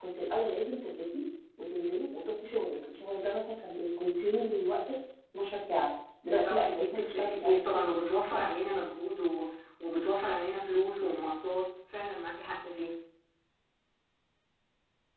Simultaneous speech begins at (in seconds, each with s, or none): 6.4 s